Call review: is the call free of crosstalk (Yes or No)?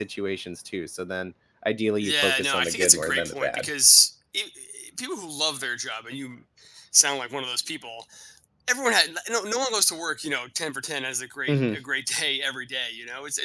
No